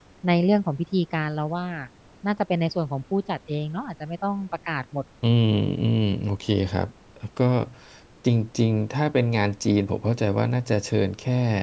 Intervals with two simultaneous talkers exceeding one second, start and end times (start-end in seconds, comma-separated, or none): none